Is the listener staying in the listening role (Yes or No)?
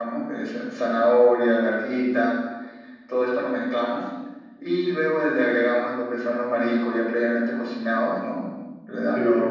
Yes